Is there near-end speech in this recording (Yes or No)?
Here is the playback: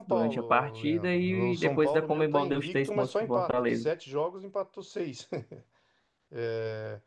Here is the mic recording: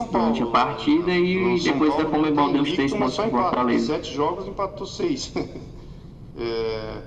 No